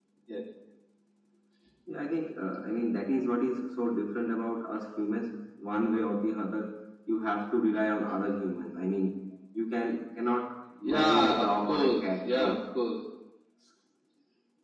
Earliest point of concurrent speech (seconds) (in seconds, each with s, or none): 11.0 s